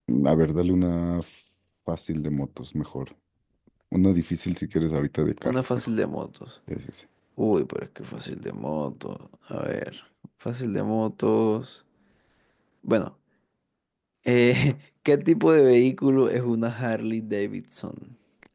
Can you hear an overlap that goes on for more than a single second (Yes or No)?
No